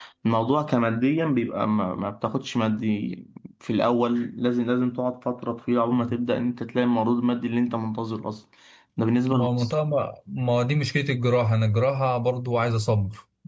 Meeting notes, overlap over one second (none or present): none